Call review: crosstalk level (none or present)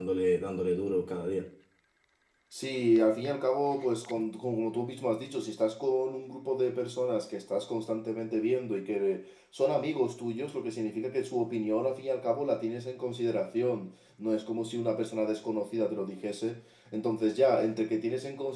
none